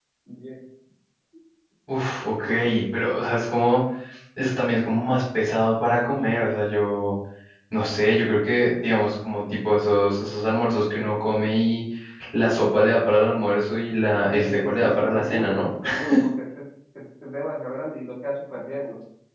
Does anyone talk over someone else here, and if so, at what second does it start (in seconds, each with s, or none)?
14.3 s